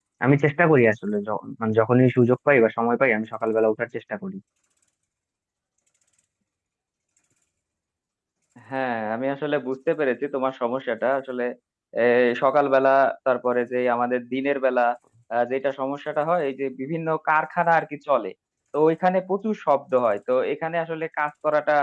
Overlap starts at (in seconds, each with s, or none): none